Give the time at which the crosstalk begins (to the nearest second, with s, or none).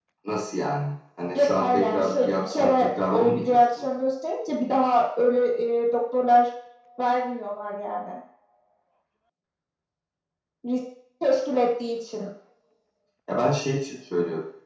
1 s